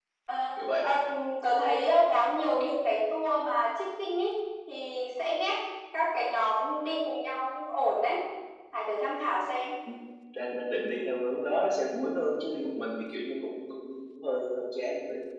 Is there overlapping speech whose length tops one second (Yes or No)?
No